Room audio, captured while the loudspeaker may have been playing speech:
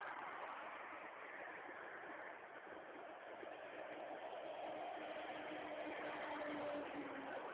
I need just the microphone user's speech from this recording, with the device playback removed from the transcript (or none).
none